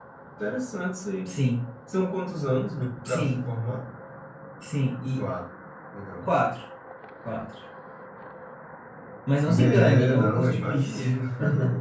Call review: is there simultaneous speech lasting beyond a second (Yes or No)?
Yes